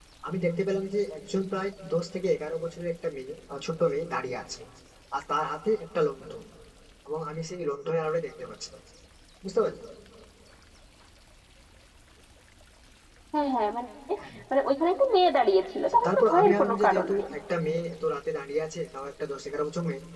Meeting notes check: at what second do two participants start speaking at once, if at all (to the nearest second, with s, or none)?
16 s